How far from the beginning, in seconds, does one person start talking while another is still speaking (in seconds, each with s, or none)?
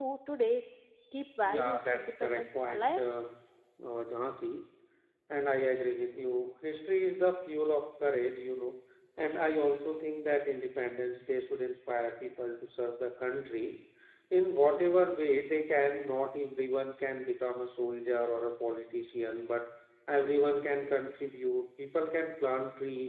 1.4 s